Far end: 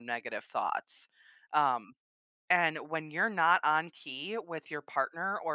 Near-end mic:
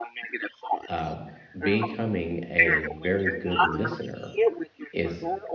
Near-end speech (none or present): present